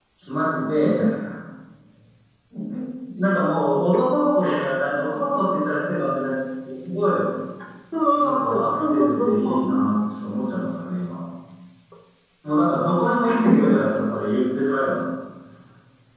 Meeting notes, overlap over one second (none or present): present